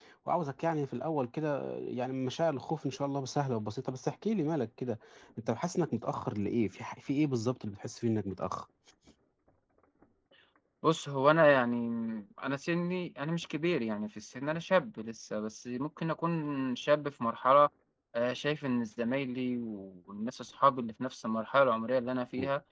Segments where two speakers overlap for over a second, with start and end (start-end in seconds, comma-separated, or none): none